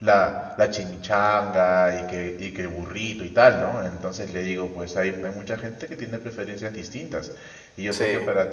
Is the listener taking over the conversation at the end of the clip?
No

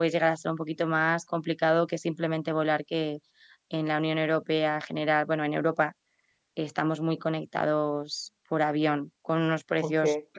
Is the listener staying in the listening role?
Yes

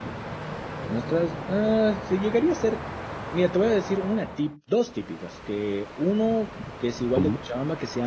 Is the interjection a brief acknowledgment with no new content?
Yes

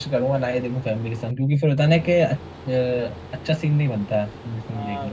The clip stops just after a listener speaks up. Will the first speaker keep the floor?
No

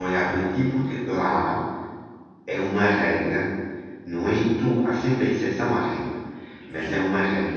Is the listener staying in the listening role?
Yes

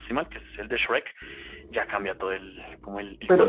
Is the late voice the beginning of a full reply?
Yes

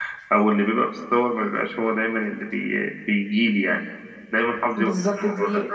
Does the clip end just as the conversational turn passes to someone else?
Yes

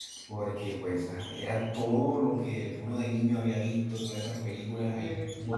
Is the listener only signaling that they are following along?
Yes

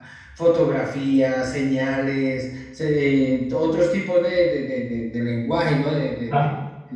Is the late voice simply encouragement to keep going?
No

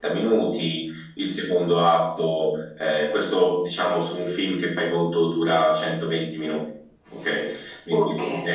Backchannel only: No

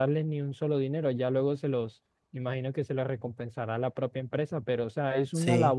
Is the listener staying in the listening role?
Yes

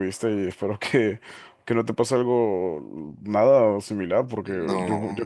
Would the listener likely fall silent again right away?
Yes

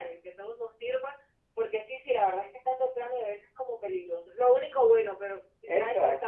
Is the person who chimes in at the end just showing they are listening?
Yes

